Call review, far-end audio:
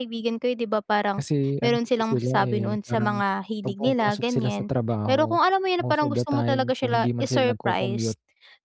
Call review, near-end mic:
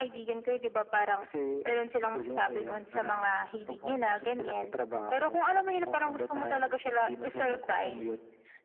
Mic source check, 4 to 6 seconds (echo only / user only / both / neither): echo only